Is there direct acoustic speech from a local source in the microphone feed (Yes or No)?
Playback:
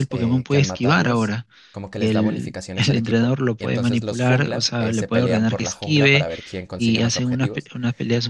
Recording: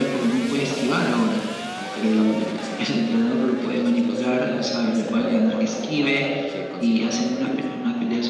No